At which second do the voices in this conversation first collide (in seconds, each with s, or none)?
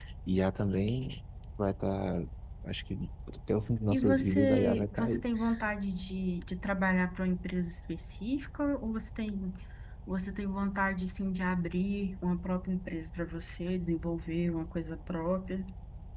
3.9 s